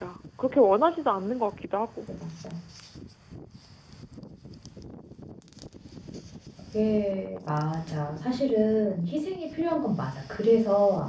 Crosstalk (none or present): none